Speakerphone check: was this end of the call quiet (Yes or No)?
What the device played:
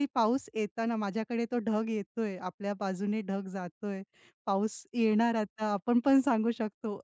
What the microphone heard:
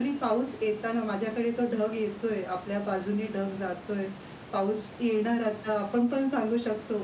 Yes